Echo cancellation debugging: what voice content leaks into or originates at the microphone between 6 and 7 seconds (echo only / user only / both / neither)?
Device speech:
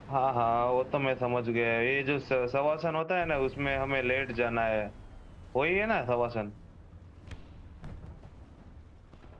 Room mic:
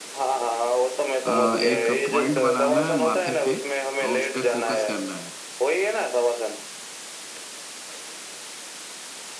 echo only